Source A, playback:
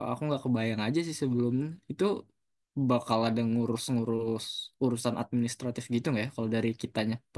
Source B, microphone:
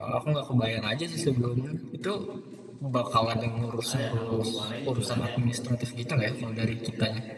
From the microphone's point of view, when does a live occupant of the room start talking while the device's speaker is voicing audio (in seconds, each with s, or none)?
3.9 s